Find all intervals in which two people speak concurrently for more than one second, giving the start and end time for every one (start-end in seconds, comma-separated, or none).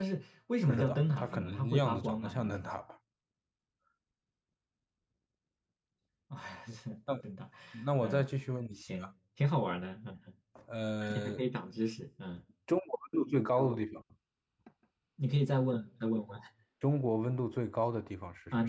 0.7-2.7